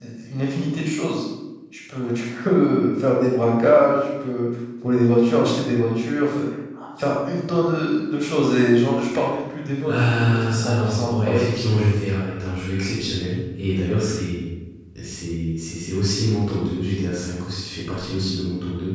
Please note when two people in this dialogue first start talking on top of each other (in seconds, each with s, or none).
9.8 s